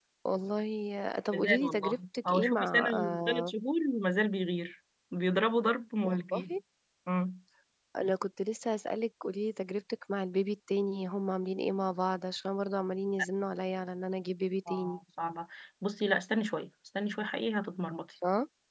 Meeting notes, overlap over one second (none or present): present